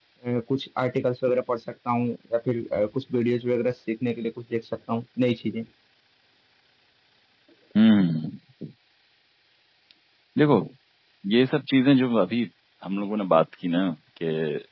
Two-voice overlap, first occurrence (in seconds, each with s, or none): none